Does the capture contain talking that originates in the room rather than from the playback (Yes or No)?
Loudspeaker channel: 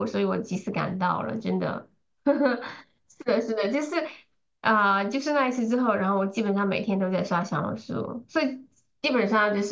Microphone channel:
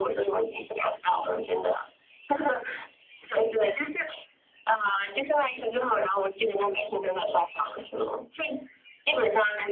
No